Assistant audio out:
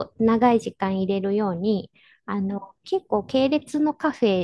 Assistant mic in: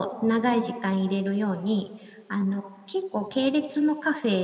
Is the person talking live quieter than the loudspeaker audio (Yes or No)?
Yes